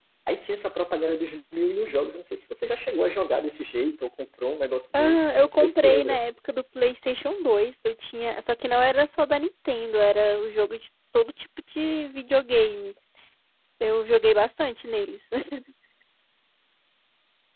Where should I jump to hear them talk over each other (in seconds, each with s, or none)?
4.9 s